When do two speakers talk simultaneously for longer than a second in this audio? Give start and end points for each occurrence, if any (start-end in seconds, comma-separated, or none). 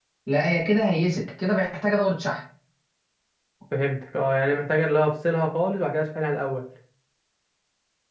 none